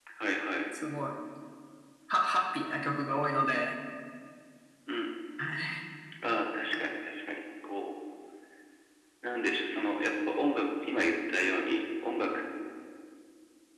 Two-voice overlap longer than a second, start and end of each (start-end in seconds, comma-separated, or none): none